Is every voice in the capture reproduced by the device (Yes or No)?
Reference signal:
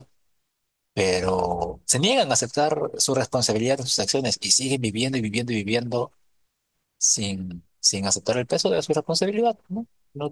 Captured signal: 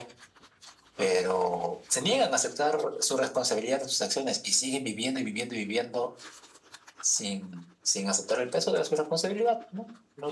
Yes